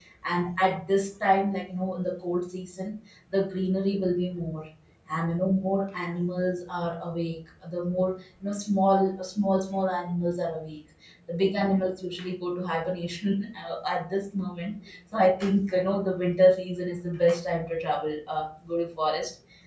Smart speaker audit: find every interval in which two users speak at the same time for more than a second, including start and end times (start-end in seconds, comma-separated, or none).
none